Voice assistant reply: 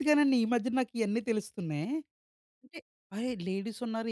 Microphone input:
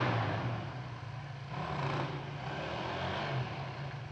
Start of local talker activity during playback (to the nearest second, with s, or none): none